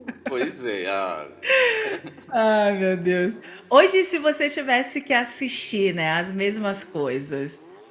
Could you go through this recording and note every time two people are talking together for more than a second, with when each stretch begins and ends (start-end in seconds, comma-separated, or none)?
none